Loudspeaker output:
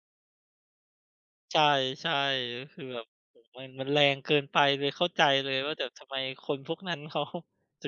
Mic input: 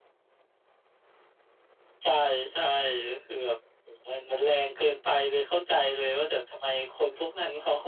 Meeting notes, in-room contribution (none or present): none